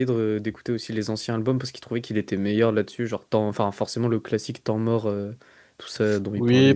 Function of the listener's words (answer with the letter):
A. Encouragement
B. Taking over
B